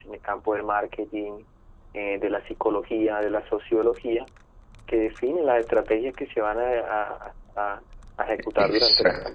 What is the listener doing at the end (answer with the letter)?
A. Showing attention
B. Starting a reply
A